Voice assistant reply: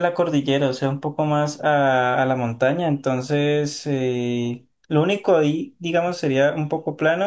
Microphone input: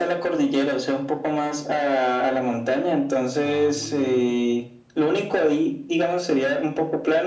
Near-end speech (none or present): present